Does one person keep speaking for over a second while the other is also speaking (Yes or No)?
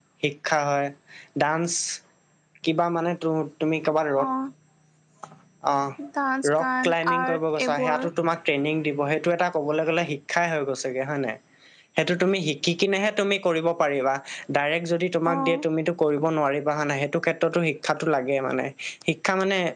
Yes